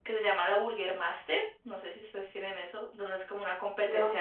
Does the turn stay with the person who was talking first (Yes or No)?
Yes